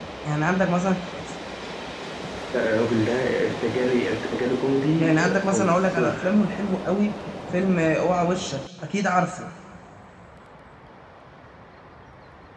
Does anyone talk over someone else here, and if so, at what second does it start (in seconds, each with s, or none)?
5.0 s